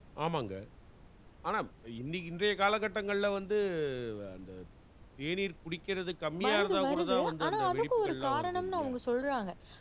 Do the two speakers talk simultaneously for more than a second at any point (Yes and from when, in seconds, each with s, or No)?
Yes, from 6.4 s